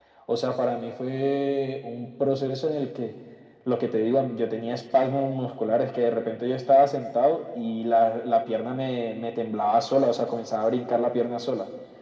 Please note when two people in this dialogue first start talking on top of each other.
none

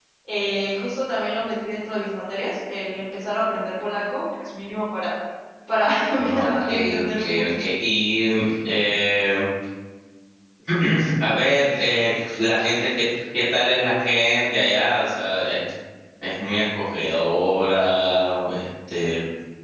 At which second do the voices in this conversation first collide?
6.2 s

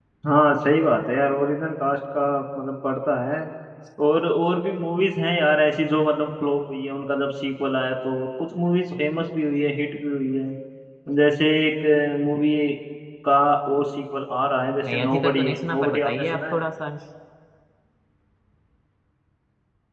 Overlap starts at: 14.9 s

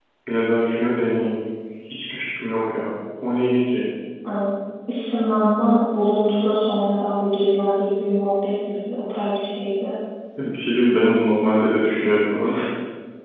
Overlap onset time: none

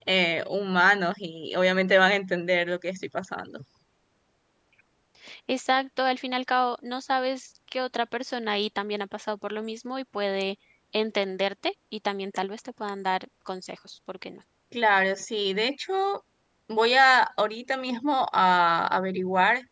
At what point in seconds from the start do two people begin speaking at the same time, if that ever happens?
none

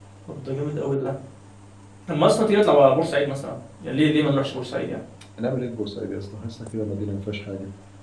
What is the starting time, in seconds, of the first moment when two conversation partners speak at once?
none

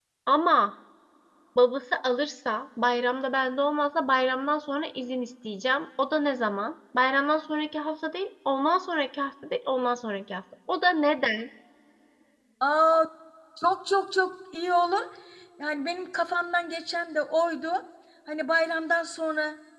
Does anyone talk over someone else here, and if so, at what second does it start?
none

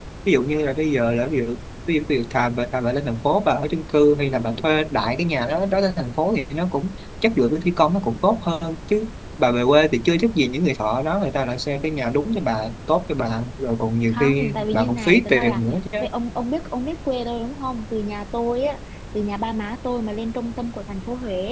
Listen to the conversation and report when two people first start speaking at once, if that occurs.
14.1 s

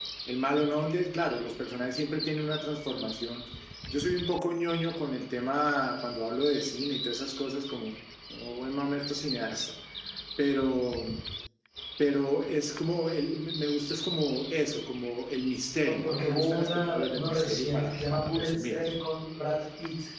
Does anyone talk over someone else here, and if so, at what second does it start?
15.8 s

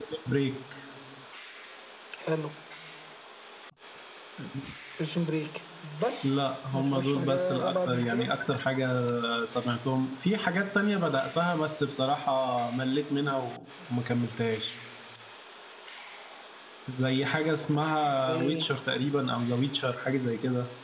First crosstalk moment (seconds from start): 6.7 s

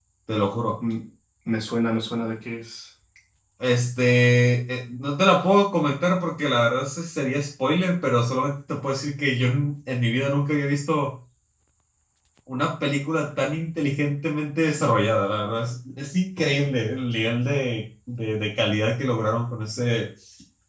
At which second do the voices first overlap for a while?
none

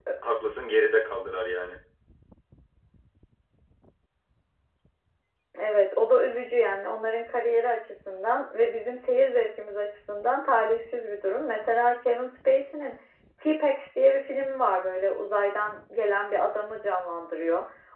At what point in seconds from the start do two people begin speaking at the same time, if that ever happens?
none

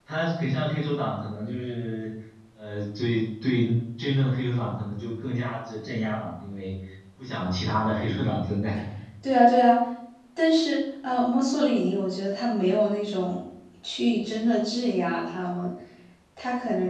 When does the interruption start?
none

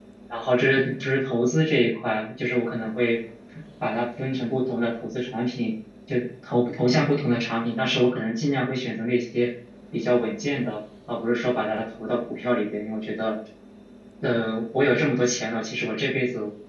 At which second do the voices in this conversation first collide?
none

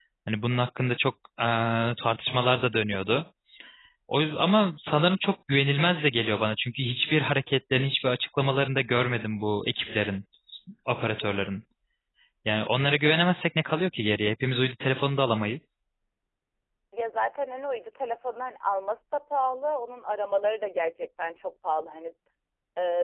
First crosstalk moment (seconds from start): none

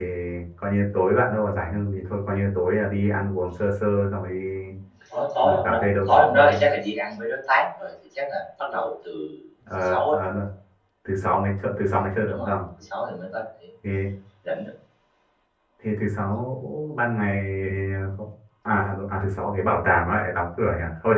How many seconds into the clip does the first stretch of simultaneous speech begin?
5.4 s

